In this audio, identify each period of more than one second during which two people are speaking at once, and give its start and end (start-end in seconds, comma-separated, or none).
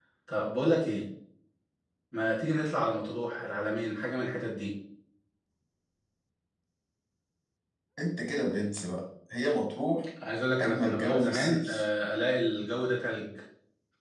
10.6-11.9